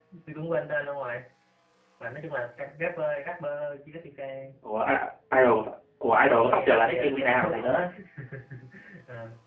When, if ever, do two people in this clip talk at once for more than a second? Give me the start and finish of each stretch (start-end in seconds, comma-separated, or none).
6.4-7.7